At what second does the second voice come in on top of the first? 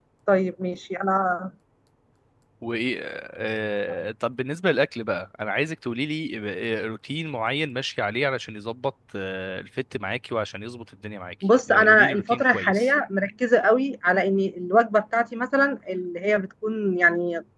11.7 s

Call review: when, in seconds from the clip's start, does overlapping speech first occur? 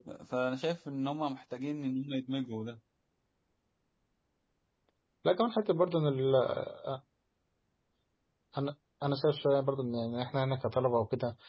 none

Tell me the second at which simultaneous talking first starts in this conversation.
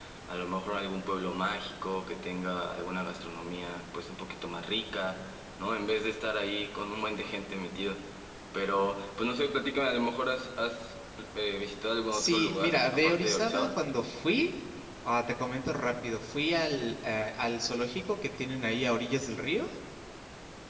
12.1 s

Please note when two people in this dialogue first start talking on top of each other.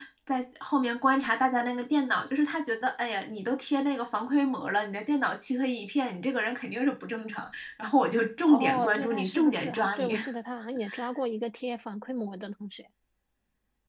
8.5 s

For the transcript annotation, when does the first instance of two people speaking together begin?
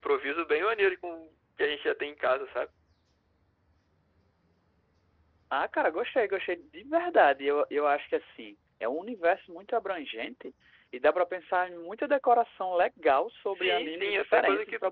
13.6 s

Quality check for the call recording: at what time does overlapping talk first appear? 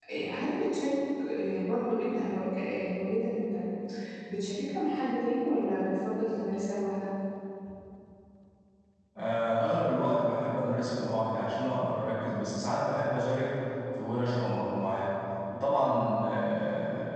none

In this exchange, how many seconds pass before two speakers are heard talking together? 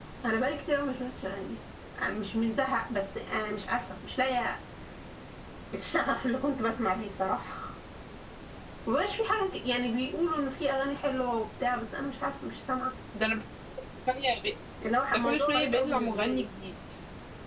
15.1 s

